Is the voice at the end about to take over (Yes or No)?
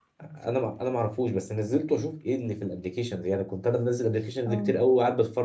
No